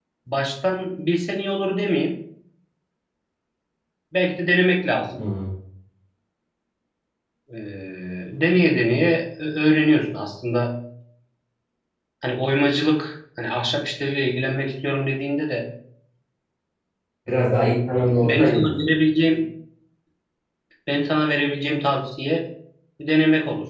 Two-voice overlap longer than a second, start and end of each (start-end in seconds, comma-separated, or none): none